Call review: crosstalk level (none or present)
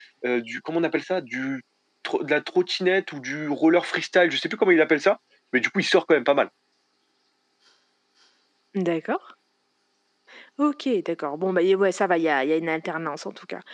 none